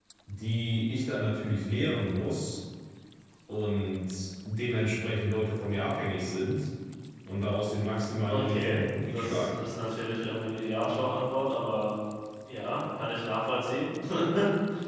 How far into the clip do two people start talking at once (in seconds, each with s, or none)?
8.3 s